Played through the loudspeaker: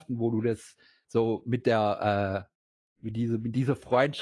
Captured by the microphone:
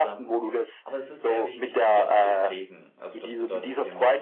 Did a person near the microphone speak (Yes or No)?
Yes